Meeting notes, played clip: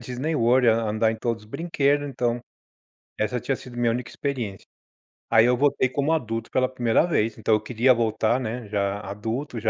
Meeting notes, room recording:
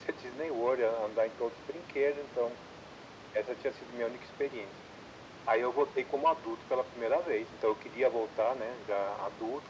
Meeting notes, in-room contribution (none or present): none